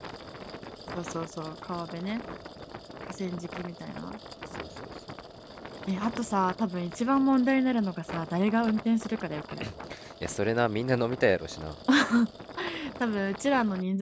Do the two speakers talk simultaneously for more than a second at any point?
No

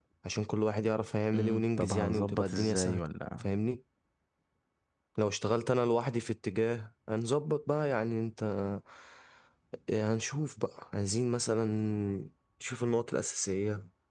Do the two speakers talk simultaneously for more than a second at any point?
Yes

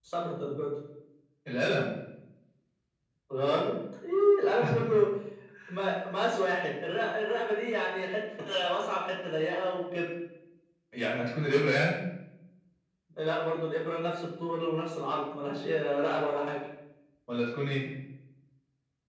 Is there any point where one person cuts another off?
No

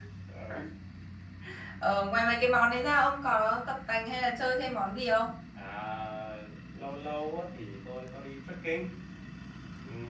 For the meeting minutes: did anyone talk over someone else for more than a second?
No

